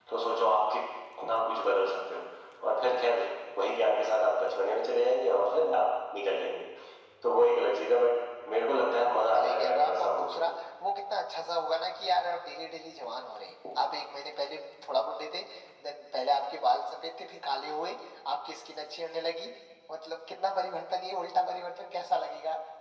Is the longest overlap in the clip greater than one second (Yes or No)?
Yes